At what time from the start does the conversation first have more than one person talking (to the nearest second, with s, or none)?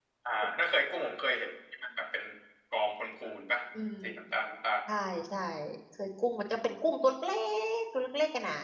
none